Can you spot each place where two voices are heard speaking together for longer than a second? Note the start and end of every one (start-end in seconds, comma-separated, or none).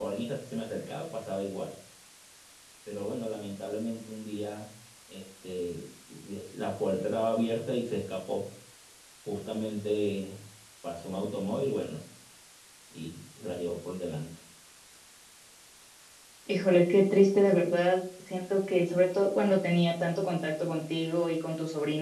none